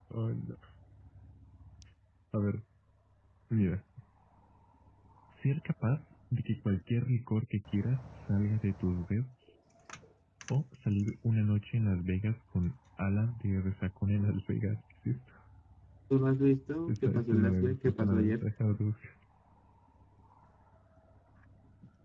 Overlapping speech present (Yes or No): Yes